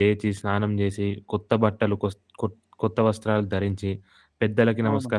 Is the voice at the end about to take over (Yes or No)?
No